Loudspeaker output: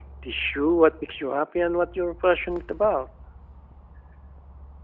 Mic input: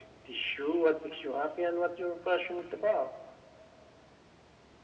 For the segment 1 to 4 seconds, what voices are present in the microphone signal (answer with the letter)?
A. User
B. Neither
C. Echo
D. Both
C